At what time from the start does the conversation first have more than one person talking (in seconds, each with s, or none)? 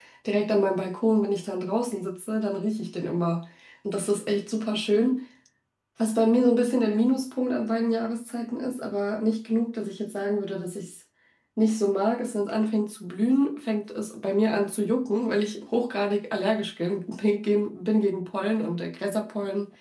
none